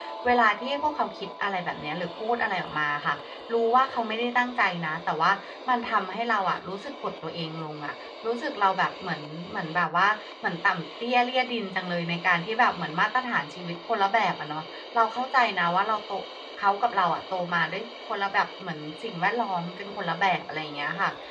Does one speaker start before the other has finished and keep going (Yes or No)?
No